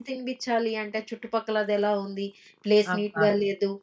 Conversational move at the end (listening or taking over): listening